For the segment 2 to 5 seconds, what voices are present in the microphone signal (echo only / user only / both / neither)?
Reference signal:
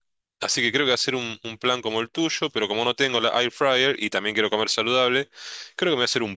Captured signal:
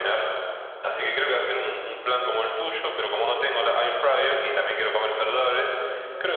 both